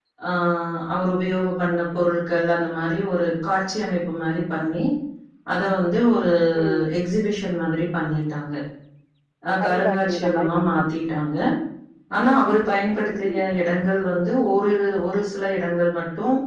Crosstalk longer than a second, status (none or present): present